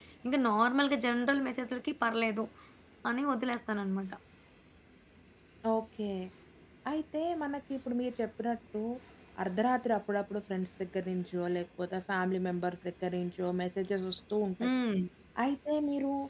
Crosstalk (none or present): none